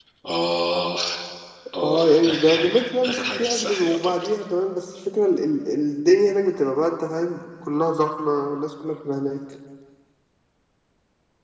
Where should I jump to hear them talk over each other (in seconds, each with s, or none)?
1.8 s